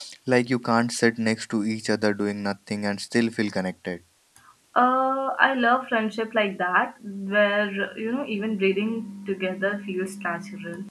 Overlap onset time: none

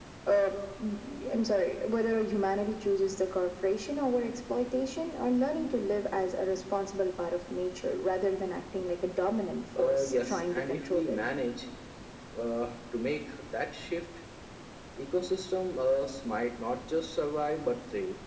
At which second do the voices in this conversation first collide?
9.8 s

